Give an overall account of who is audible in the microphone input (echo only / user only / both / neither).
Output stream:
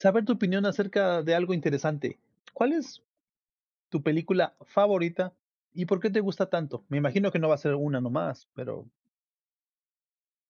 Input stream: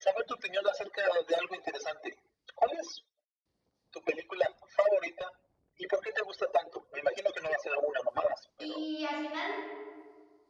both